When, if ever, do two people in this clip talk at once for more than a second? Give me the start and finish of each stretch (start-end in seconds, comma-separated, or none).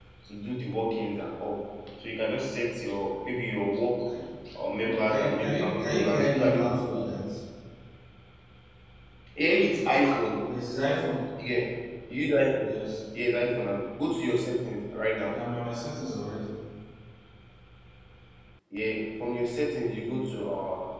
4.8-7.0